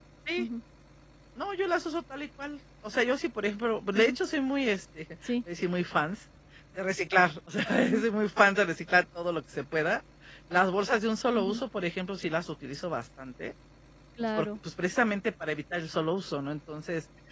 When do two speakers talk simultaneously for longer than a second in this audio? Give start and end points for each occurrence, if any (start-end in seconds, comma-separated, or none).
none